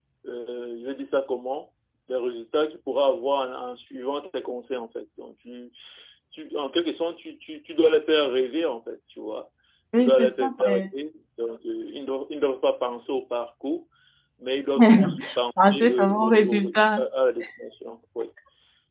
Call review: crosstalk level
present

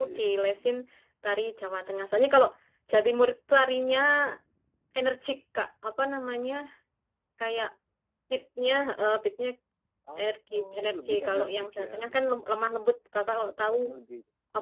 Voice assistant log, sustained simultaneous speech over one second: present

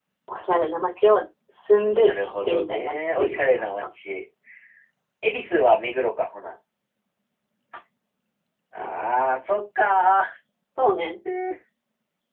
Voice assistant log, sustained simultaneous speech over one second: present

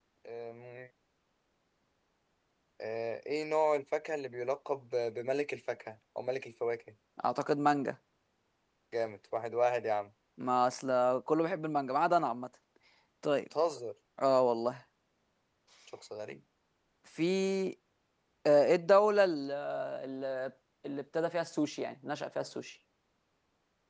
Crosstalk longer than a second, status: none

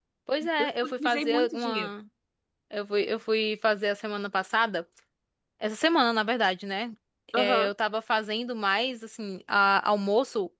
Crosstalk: present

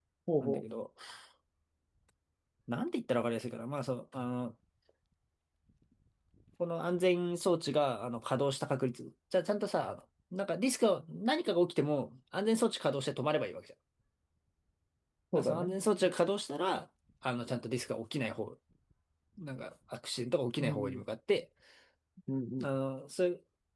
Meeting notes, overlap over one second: none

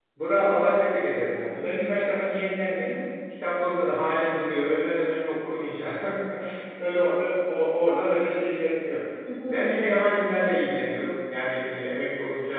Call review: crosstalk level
present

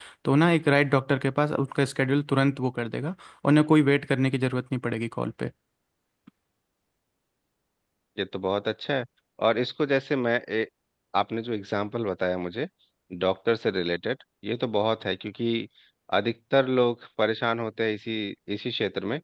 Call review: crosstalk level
none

